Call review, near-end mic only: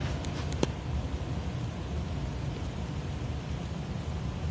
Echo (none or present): none